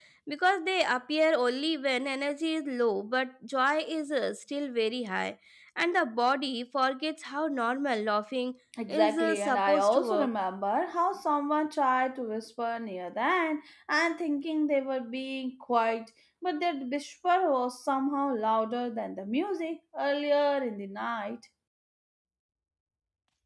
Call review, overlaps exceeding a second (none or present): present